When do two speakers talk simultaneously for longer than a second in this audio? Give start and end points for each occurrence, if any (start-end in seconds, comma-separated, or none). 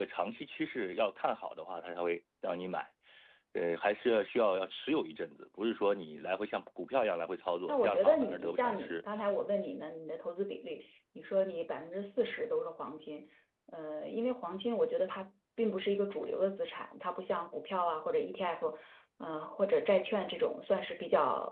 7.7-9.0